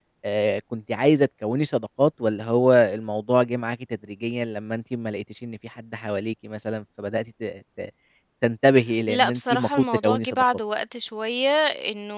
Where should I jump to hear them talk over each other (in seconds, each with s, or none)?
9.1 s